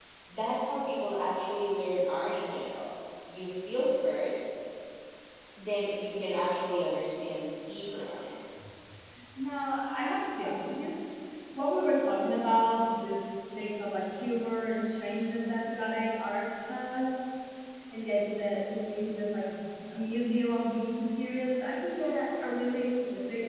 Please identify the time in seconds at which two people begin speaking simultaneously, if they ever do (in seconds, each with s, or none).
none